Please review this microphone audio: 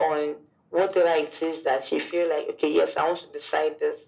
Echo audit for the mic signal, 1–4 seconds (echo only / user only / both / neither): echo only